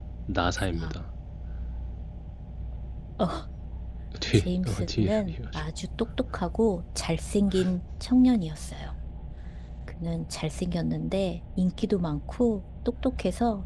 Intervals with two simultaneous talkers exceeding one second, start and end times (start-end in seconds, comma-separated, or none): 4.3-5.6